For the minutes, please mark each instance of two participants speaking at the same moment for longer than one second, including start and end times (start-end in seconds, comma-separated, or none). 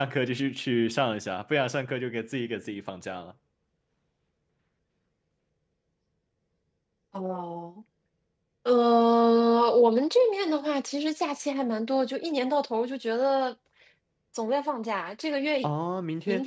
none